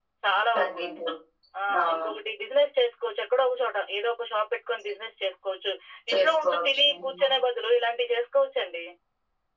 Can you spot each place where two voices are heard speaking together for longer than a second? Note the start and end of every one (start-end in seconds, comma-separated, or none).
6.1-7.4